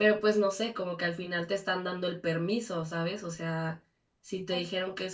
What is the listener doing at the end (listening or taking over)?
listening